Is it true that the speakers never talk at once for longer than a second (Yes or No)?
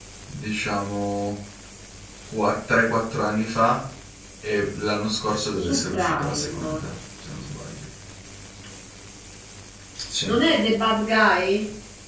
No